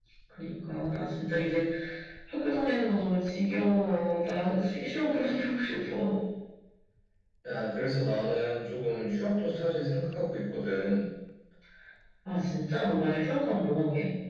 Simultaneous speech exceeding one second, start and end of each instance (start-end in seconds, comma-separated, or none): none